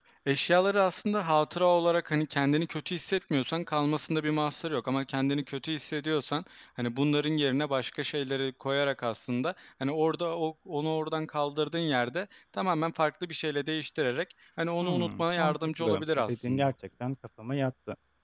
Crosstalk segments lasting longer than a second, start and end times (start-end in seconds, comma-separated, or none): 14.8-16.7